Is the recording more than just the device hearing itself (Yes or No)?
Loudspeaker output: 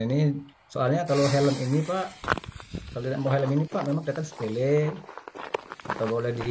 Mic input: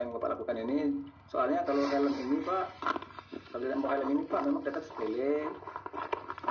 No